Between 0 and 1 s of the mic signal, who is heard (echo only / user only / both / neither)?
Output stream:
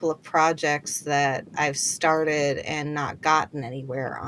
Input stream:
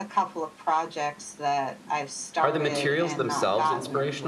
echo only